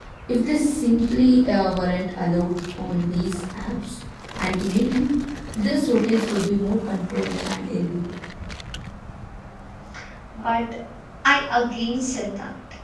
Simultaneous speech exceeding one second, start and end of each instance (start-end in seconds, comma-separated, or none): none